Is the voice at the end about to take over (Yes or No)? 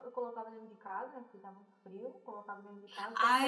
Yes